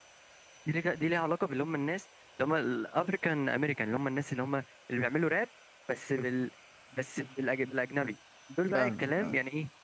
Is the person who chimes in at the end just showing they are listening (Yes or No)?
Yes